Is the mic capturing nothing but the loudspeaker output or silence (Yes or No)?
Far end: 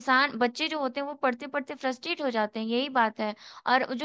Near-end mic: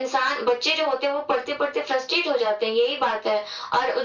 Yes